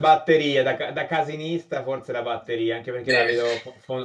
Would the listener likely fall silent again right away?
Yes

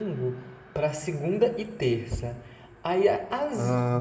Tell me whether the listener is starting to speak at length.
No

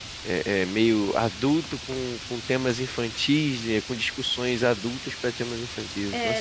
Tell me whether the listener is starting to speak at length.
Yes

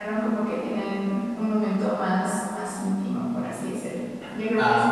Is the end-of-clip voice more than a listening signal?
No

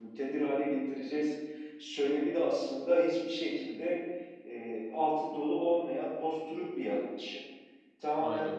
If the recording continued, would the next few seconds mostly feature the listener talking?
No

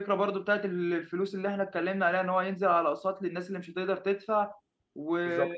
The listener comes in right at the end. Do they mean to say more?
No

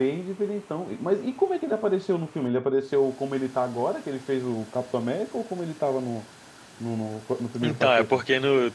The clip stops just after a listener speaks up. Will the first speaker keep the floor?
No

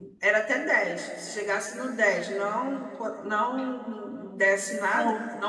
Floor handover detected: No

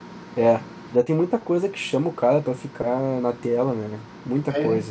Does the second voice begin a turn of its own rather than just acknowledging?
Yes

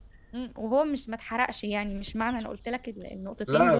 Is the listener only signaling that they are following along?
No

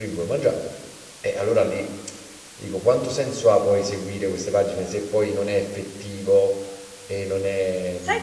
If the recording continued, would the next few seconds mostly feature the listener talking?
Yes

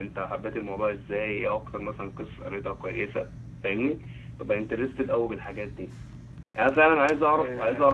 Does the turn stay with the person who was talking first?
Yes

